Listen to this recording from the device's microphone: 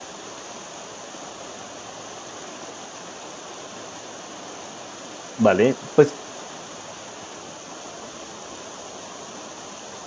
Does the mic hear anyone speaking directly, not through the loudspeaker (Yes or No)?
Yes